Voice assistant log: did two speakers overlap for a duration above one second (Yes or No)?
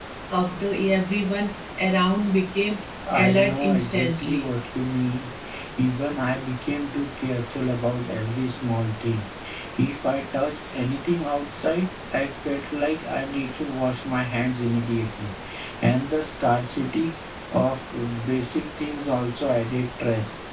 Yes